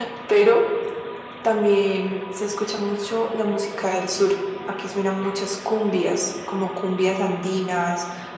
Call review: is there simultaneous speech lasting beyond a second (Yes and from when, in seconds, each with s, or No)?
No